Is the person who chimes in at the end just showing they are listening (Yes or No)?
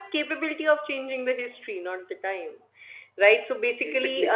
Yes